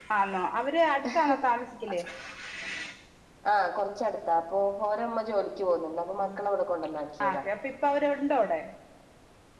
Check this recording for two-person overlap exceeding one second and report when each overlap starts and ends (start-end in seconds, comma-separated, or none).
none